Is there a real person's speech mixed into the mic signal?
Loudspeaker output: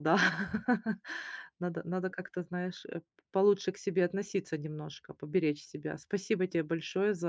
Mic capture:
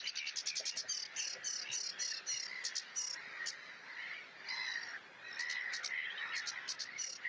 No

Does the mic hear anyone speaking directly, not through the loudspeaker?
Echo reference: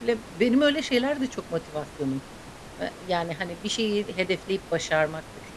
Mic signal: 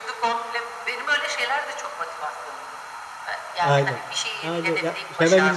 Yes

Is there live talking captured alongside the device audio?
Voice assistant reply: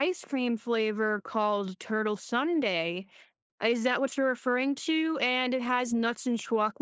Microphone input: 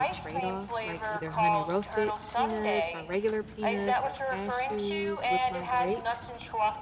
Yes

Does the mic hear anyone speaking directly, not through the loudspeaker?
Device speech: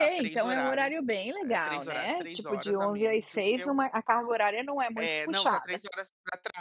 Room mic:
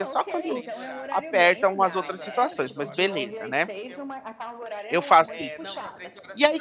Yes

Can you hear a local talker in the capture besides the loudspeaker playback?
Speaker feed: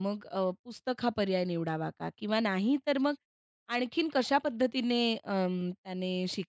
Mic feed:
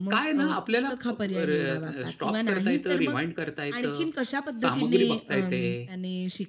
Yes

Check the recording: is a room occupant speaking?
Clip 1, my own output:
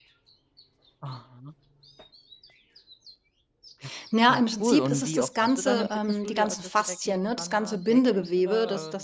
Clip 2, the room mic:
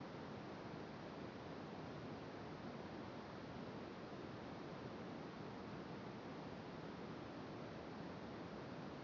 No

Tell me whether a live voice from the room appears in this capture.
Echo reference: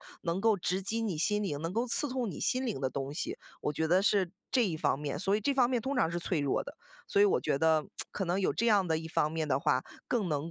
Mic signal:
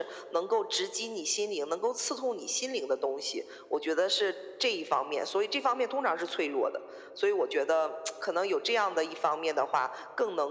No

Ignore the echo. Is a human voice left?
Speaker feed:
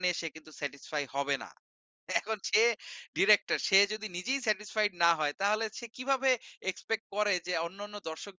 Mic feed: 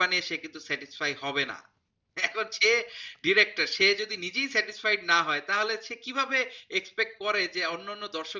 No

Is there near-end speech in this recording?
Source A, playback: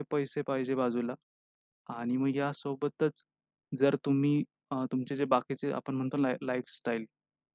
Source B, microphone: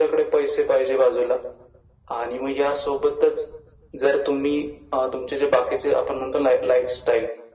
No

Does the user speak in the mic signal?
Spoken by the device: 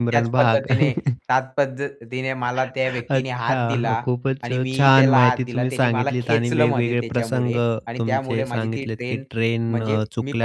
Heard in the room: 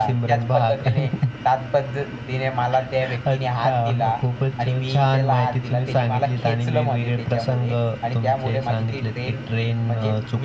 No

